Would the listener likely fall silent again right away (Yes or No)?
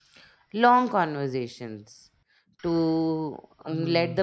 Yes